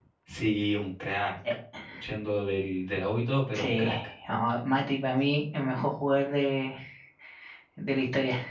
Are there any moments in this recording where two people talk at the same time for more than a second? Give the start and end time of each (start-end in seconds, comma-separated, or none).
none